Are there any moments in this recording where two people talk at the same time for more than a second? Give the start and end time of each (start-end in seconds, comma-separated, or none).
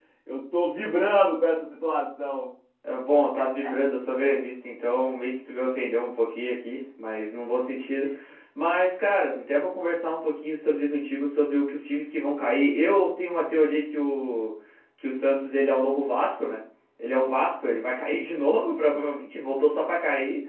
none